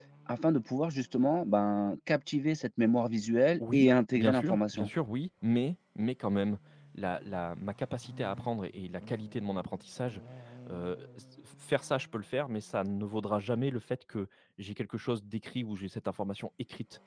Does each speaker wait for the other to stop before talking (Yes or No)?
No